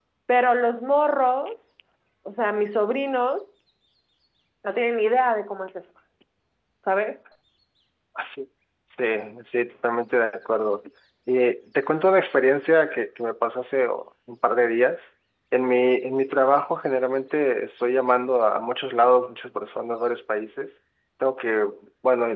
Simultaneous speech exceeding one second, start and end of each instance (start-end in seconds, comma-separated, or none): none